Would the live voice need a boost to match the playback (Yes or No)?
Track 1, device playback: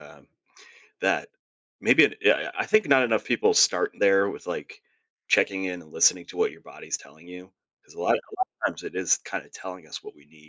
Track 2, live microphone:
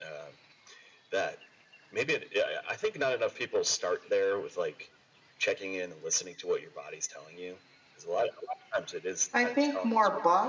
No